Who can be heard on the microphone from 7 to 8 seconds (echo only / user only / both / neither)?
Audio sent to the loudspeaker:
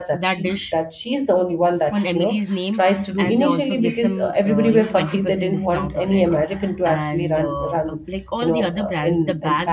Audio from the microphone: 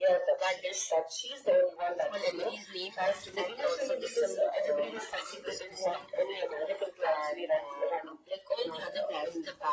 echo only